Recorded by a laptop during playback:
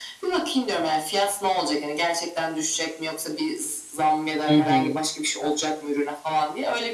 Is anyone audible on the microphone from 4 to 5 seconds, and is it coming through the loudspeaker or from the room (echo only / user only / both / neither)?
both